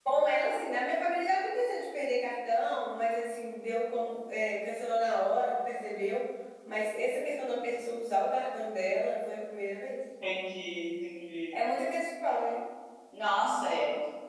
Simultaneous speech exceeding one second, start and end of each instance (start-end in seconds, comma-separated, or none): none